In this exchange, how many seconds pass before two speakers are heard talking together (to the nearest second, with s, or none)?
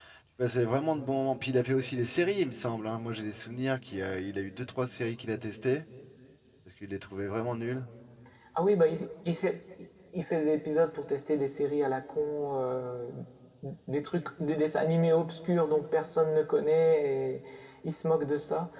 none